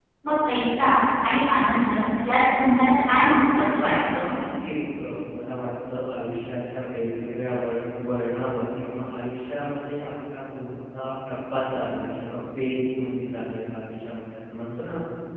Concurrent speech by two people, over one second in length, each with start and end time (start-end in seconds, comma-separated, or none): none